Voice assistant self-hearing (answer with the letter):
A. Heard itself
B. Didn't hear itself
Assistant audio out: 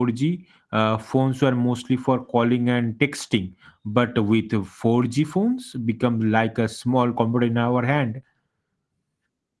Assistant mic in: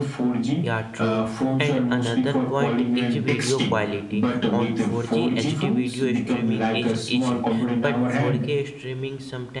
A